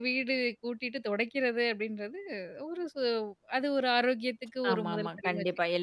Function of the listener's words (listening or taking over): taking over